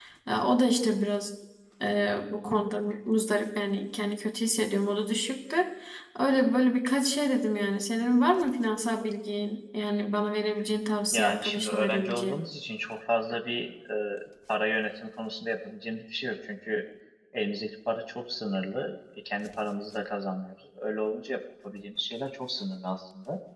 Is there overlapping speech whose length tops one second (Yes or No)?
Yes